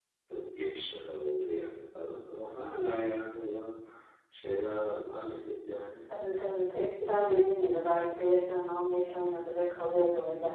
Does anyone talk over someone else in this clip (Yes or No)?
No